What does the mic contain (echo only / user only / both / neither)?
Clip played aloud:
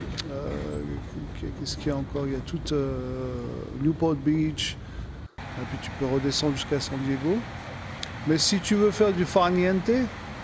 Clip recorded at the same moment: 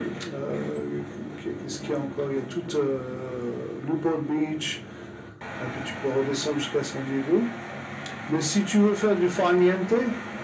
echo only